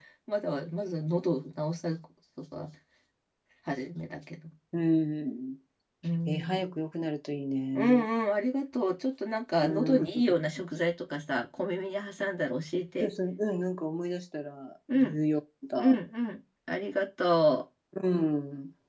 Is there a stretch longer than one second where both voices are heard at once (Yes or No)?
No